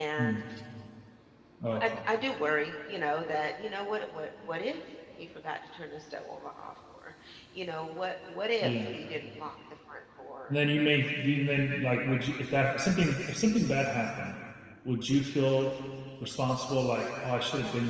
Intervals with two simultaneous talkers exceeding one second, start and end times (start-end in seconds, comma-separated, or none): none